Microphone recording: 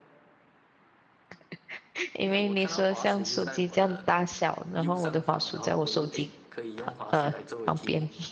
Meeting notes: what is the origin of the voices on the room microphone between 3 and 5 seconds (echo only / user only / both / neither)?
both